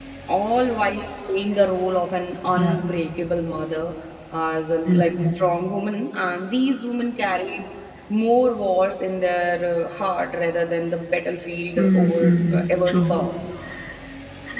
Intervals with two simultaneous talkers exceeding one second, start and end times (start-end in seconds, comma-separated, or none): 11.8-13.2